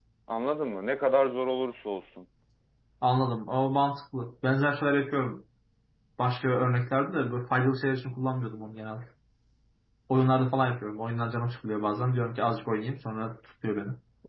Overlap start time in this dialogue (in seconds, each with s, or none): none